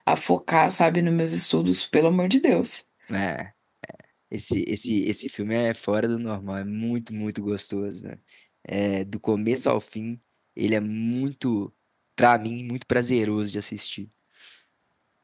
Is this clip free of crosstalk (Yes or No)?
Yes